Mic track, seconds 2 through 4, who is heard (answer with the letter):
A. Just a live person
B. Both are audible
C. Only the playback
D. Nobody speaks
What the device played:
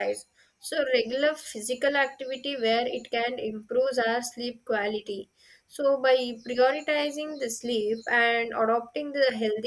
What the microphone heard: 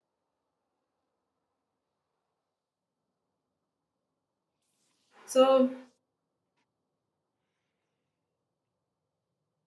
D